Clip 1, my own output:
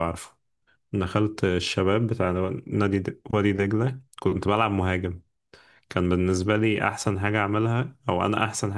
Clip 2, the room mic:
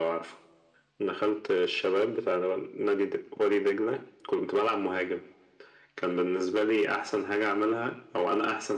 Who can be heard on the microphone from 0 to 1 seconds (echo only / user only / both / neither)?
echo only